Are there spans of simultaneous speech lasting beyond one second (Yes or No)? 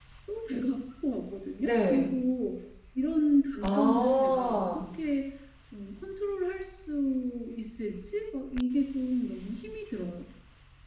Yes